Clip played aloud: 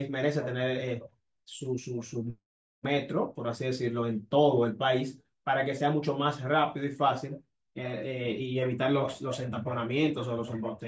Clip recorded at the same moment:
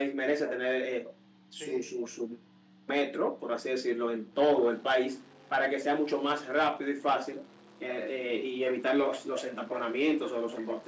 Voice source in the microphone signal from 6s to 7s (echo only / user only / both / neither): echo only